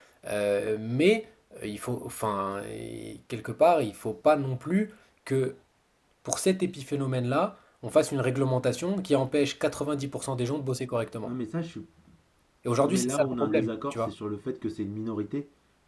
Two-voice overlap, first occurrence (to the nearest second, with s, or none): 13 s